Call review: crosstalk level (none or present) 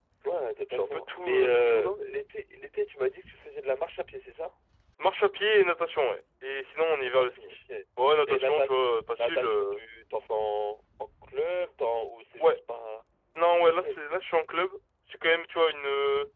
present